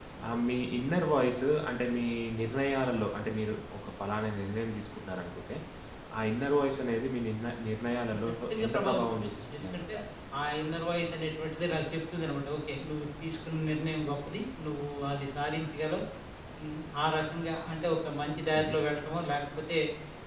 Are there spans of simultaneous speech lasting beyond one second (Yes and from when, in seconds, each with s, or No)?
Yes, from 8.1 s